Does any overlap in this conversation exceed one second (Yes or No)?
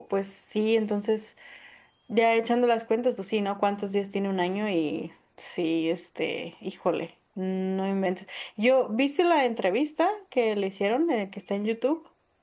No